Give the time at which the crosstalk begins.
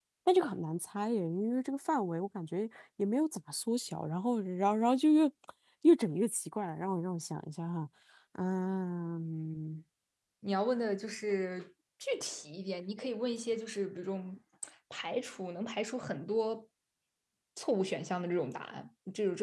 none

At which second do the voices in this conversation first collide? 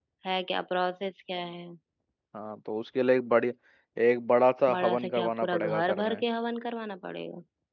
5 s

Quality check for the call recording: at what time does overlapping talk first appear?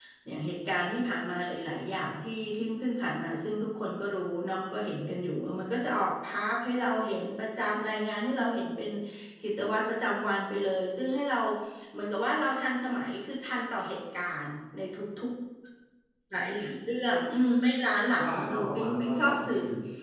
18 s

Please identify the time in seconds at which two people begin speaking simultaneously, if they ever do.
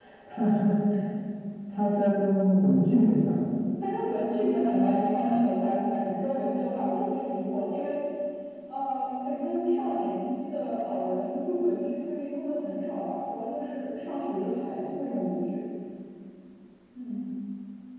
none

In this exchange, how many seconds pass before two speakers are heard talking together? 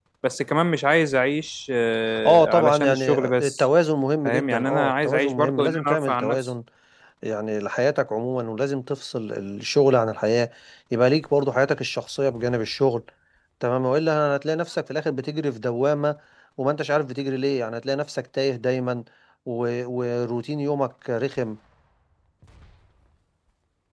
2 s

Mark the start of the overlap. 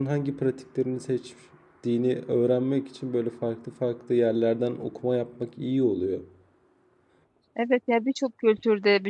none

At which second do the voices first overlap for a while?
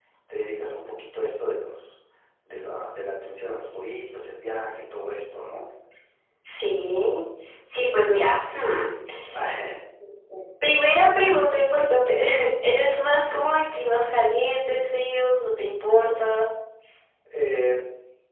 none

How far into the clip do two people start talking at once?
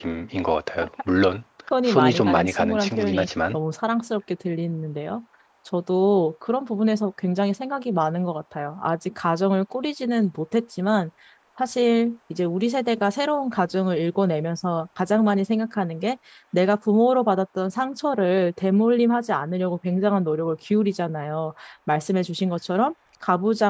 2 s

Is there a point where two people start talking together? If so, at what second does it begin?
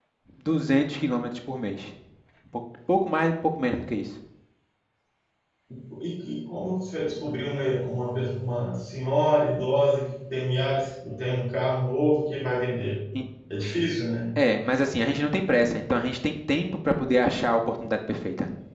none

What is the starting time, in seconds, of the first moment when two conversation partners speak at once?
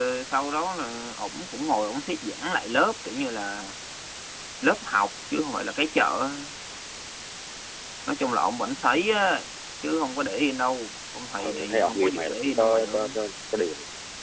11 s

